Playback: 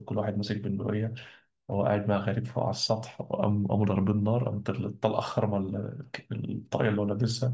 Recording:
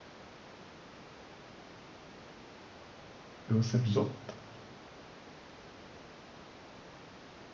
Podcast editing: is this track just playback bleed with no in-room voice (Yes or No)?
No